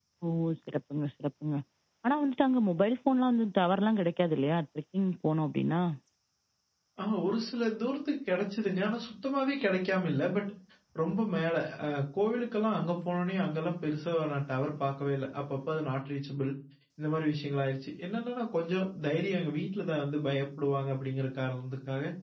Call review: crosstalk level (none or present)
none